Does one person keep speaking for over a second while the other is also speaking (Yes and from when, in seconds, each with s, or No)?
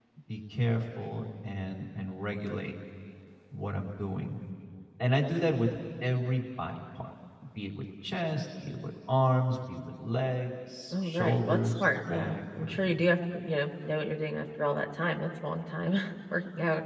Yes, from 10.9 s